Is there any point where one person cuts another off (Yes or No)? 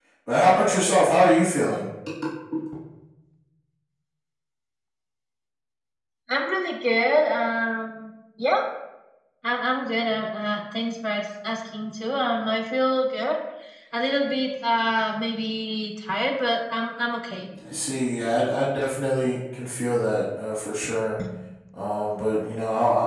No